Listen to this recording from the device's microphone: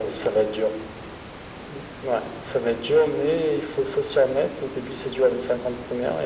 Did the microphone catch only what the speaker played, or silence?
Yes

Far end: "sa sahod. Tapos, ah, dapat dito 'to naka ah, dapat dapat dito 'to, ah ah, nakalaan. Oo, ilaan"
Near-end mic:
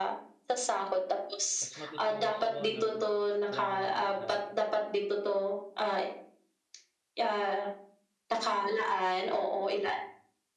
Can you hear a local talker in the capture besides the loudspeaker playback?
Yes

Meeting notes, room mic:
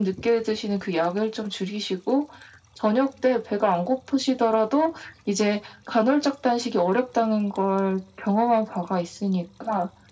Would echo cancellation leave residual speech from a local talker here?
No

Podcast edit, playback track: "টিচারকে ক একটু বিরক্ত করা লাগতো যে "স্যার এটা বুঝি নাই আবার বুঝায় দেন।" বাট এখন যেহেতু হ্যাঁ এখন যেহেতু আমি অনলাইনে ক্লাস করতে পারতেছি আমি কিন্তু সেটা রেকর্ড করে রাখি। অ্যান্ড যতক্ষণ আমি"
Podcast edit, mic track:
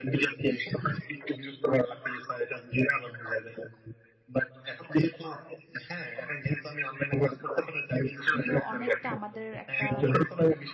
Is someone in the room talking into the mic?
Yes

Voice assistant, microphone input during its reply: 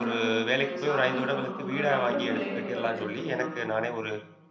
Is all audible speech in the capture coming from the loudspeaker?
No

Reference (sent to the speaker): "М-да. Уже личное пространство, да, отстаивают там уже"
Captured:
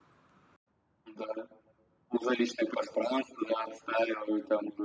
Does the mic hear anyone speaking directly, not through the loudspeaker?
No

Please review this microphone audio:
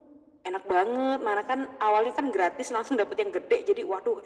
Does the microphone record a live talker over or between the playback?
No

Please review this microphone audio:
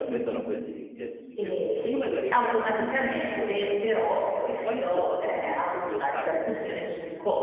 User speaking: Yes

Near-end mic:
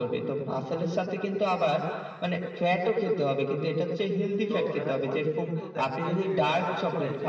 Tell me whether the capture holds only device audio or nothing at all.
No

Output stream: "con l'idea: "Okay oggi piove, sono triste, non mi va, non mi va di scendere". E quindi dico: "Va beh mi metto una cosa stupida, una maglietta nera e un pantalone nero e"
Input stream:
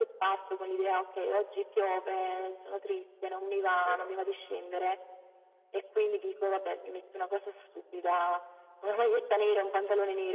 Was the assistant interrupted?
Yes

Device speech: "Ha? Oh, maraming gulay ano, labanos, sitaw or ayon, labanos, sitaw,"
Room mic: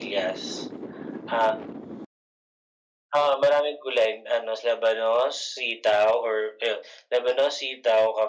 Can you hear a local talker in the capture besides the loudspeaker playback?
No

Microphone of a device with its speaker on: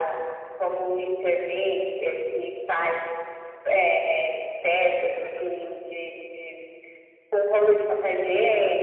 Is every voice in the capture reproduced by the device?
No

